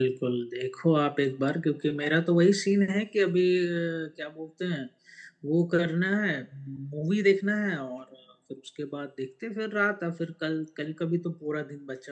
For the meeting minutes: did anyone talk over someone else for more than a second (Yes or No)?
No